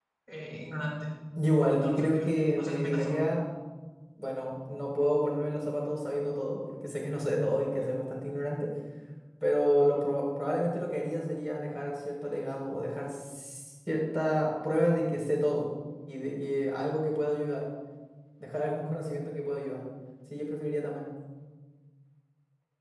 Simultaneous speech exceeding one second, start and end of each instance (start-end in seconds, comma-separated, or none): 1.7-3.2